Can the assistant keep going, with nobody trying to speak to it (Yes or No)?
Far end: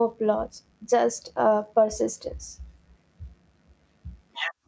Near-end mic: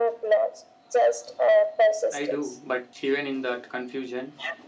No